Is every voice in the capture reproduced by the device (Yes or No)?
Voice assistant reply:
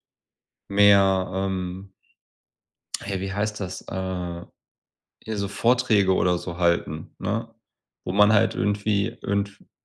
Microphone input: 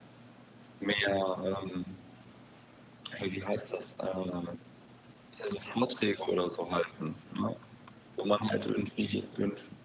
Yes